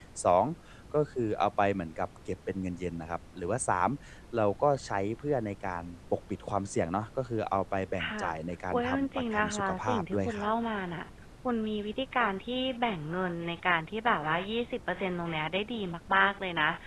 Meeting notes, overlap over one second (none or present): present